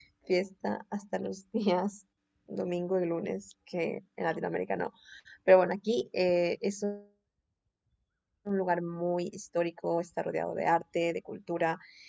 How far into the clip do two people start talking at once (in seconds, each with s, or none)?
none